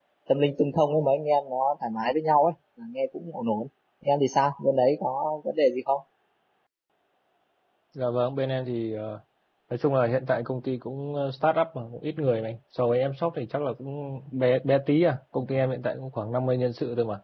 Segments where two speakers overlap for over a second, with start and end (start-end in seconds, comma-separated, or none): none